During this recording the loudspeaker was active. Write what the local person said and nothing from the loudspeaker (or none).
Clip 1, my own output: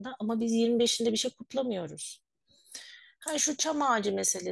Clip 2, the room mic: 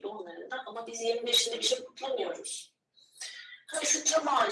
none